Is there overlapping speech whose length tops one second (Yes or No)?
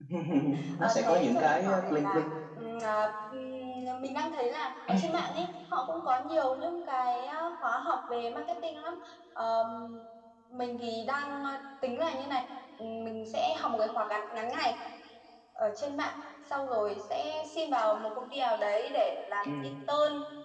Yes